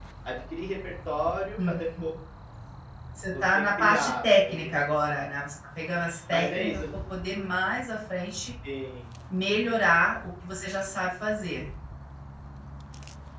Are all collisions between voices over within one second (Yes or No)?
No